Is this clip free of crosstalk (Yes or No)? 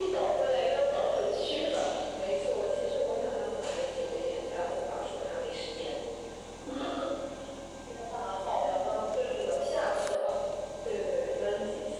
Yes